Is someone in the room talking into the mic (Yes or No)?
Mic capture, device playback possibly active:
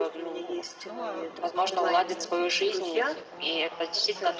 Yes